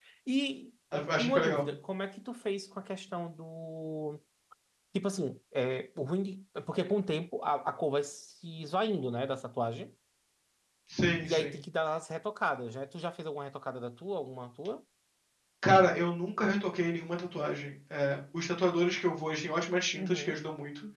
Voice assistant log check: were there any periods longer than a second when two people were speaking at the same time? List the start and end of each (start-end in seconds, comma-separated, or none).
none